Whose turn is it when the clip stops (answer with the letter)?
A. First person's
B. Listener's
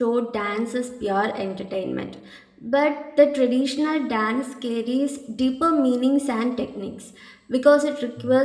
A